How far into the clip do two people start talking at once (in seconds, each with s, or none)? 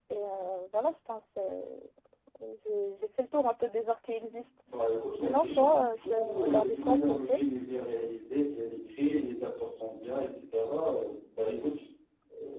5.2 s